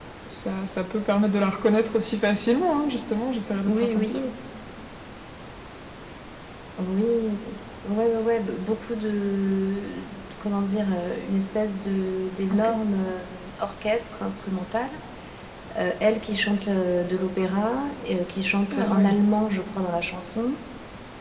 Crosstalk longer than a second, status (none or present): none